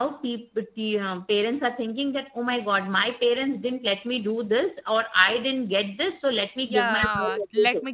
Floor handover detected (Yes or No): Yes